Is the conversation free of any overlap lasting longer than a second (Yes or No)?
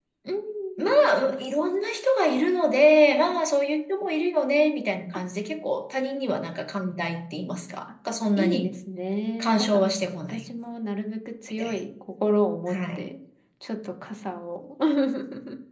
Yes